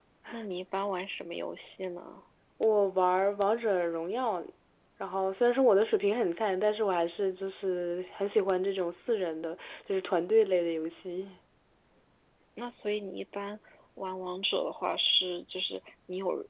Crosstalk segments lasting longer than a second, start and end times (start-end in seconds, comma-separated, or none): none